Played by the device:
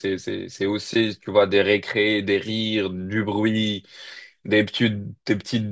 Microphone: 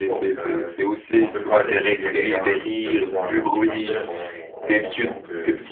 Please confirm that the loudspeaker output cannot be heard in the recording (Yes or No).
No